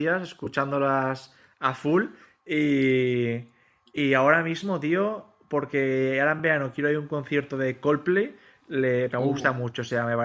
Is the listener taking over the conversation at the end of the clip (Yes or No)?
No